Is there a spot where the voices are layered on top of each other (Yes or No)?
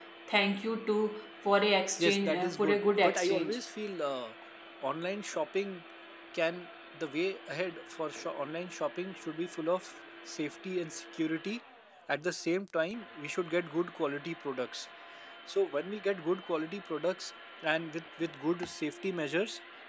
Yes